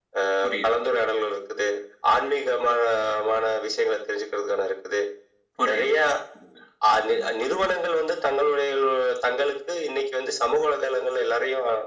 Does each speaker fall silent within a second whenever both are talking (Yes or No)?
Yes